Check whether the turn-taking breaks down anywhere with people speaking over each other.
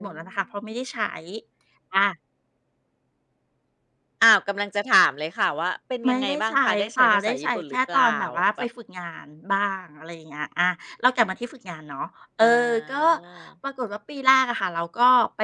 Yes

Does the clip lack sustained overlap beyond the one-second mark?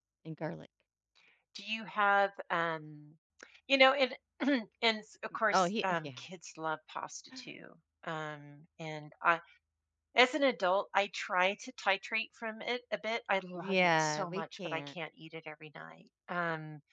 No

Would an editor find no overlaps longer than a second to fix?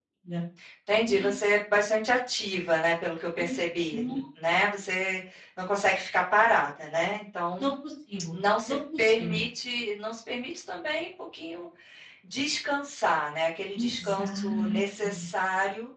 No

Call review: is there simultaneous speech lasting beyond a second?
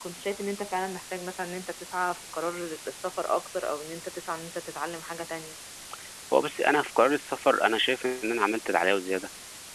No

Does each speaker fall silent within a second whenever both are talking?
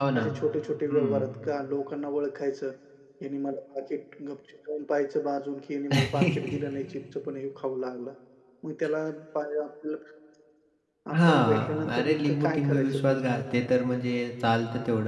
No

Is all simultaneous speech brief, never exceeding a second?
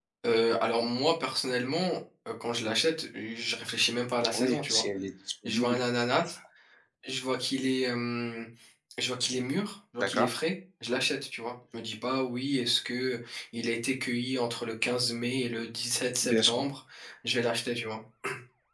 Yes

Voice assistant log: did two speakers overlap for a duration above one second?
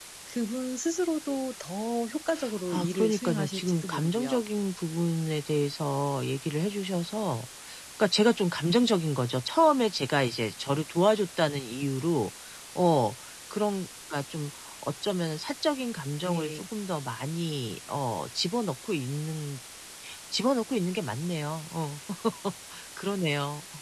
Yes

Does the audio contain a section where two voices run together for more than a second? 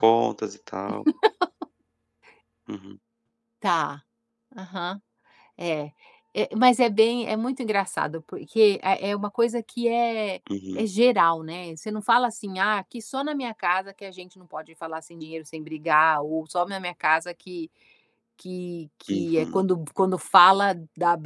No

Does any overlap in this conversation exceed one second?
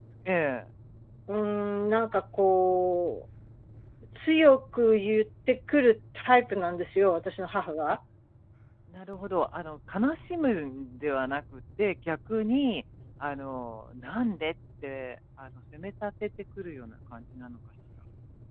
No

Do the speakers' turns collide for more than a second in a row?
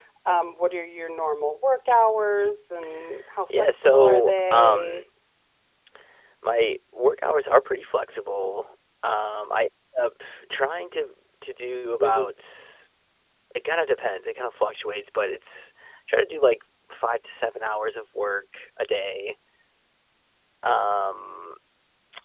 Yes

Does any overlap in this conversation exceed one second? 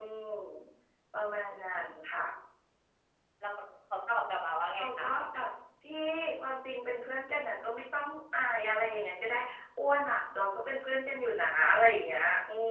No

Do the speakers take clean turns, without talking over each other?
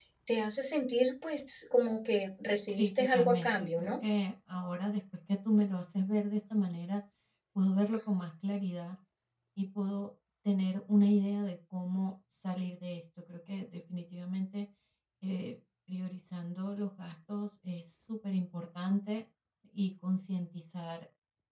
No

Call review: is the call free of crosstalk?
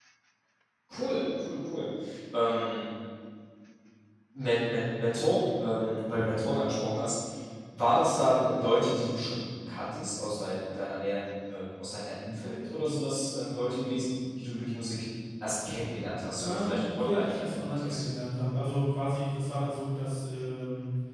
No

